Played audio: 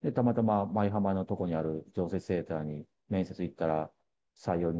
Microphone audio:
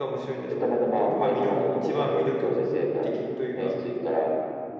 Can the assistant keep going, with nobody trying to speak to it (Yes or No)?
No